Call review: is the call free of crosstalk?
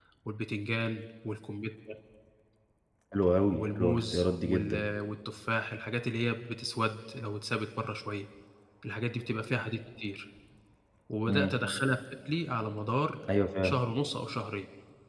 No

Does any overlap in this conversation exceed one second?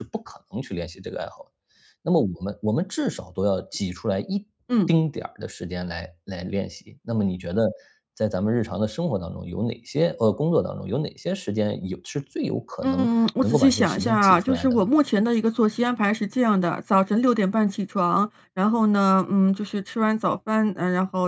Yes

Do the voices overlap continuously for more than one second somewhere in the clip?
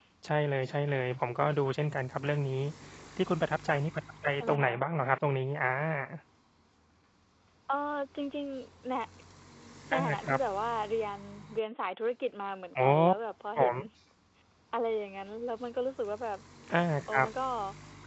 No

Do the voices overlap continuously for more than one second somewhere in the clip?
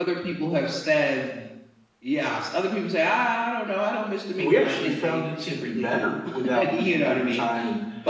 Yes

